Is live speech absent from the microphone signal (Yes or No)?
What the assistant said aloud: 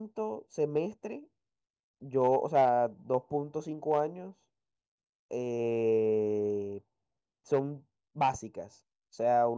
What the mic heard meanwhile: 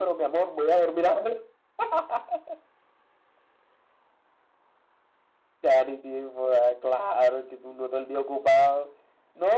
No